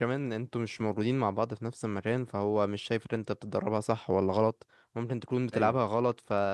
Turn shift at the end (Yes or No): No